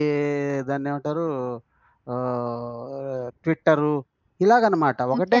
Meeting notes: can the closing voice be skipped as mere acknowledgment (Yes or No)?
No